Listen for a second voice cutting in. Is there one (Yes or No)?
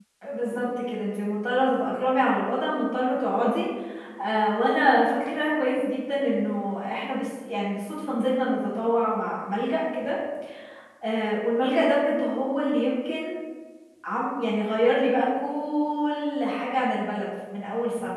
No